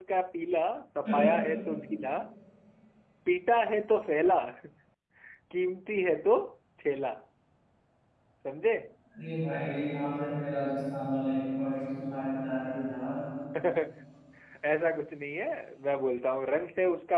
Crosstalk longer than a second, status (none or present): none